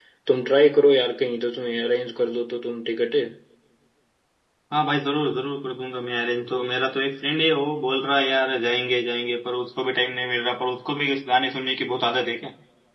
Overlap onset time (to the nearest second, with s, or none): none